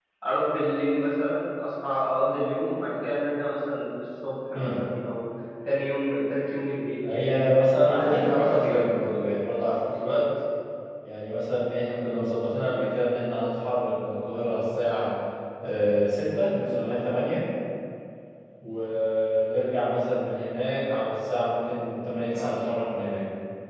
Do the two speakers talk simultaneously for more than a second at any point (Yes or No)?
Yes